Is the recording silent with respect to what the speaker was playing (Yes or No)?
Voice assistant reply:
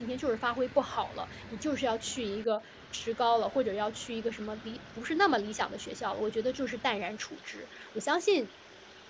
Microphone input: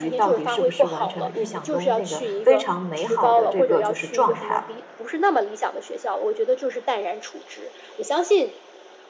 No